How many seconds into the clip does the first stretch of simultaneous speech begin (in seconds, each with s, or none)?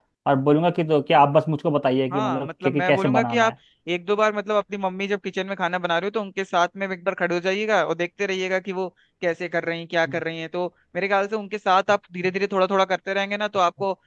2.1 s